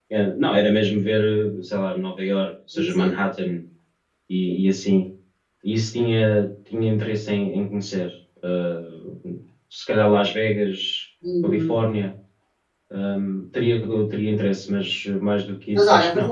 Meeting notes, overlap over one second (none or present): none